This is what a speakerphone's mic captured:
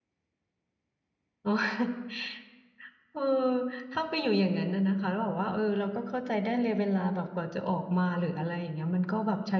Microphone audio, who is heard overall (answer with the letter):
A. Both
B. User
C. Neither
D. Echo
B